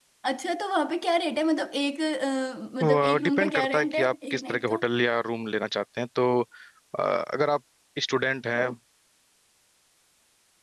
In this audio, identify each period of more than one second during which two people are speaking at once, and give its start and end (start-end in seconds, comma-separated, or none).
2.8-4.8